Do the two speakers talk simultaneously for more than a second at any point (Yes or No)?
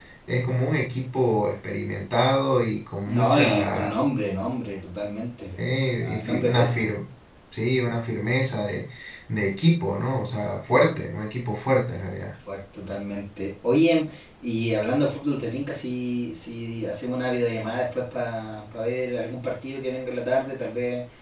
Yes